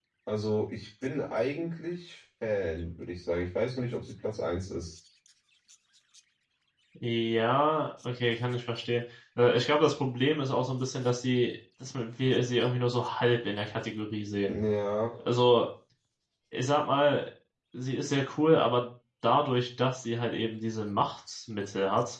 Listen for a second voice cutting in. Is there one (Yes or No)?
No